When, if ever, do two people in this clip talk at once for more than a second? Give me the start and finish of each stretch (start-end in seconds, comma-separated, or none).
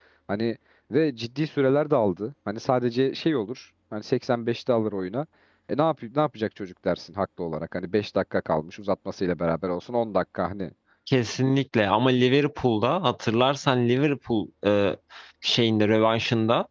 none